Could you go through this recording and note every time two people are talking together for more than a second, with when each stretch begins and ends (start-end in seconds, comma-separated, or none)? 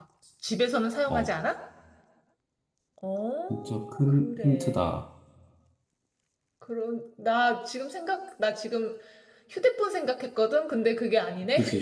3.5-4.8